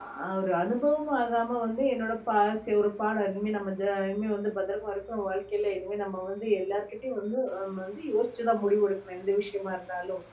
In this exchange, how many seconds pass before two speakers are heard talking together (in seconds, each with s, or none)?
none